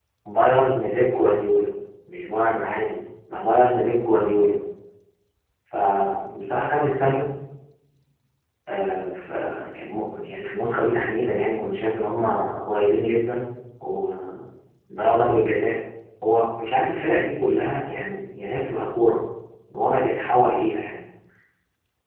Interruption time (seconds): none

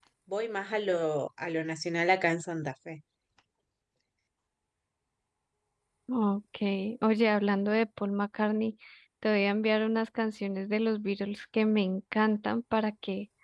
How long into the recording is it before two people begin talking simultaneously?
none

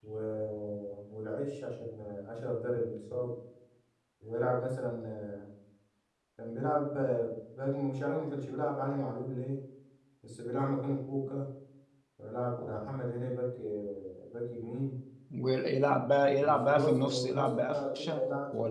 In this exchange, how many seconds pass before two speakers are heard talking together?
16.4 s

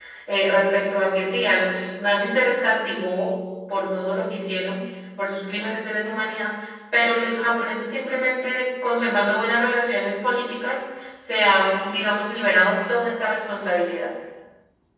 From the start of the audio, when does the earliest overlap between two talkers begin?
none

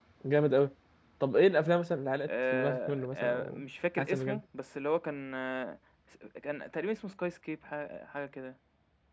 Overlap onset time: 2.3 s

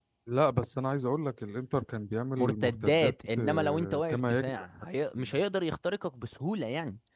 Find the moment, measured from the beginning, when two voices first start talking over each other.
2.4 s

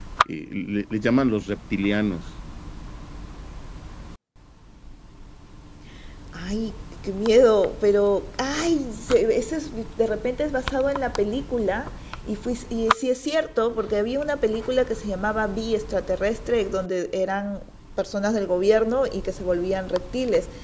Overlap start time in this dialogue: none

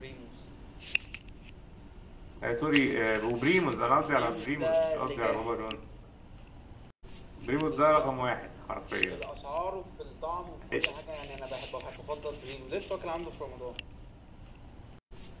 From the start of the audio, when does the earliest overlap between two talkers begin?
4.1 s

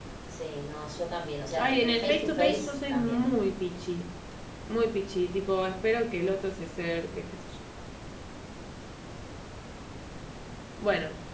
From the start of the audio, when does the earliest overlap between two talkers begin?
1.5 s

